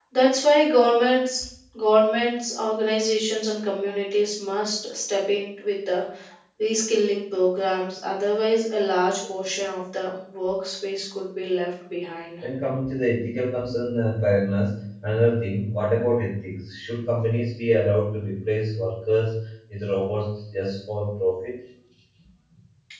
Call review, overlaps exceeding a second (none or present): none